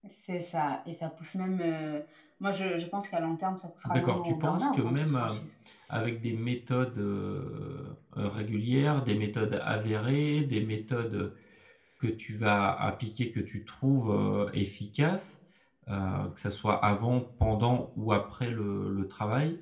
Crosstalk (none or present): present